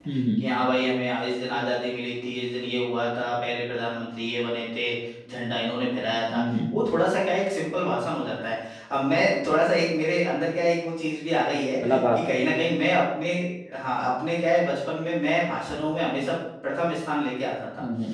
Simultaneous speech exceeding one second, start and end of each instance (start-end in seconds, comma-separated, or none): none